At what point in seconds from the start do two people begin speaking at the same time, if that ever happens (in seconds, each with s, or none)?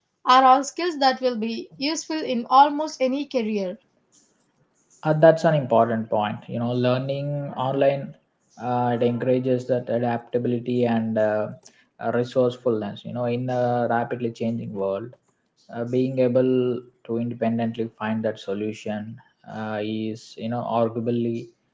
none